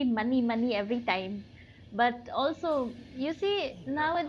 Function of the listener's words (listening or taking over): listening